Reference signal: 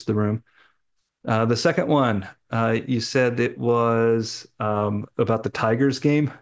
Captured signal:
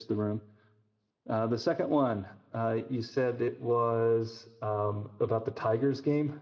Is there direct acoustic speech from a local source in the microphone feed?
No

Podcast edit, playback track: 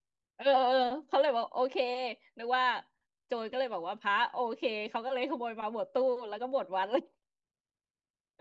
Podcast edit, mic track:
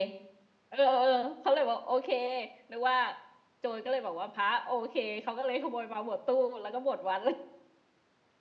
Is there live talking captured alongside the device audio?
No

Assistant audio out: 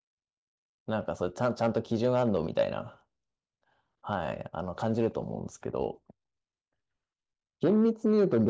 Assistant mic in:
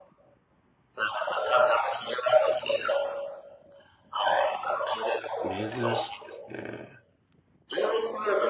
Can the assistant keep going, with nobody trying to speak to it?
No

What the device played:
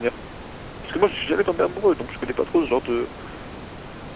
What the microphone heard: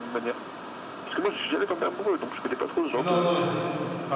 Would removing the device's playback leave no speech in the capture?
No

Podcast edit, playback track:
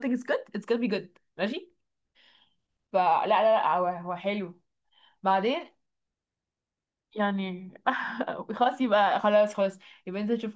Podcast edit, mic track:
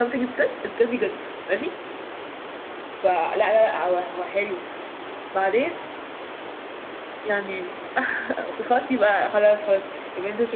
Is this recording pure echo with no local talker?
Yes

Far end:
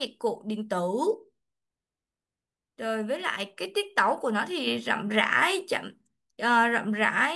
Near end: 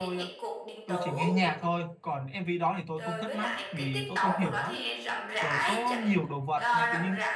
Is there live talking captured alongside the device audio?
Yes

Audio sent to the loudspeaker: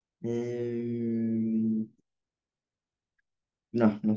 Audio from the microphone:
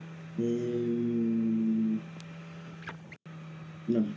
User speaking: No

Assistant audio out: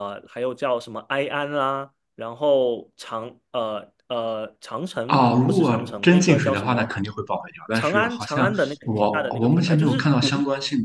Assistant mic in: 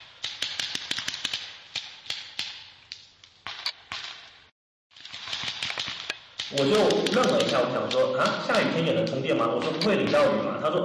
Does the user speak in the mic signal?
Yes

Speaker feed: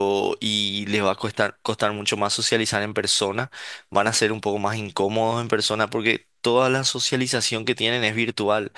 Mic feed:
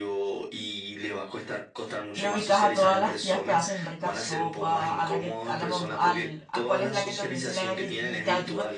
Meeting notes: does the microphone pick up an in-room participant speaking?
Yes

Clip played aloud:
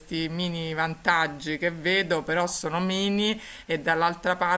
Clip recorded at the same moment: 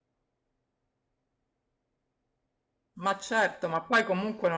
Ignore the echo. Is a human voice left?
Yes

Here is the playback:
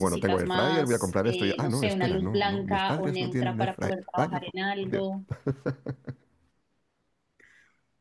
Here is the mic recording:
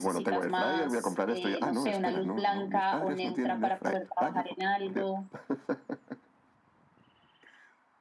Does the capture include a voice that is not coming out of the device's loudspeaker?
No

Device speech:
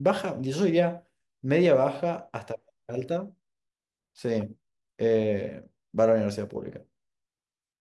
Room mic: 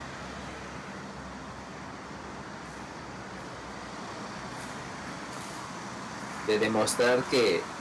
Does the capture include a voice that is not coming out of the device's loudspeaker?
Yes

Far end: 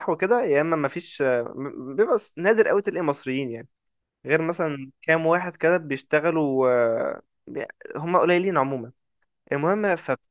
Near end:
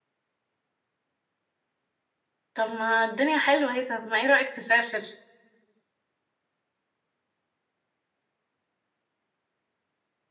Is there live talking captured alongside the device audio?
Yes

